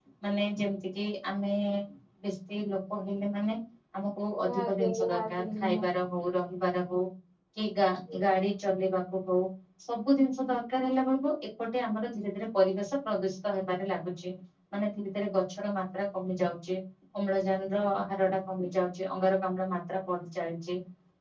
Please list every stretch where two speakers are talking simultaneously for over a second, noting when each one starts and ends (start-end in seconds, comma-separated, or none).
4.4-5.8